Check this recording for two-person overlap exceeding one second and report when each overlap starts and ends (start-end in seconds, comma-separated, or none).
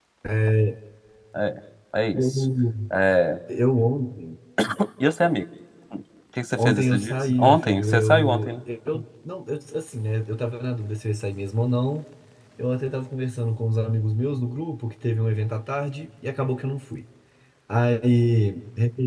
6.6-8.5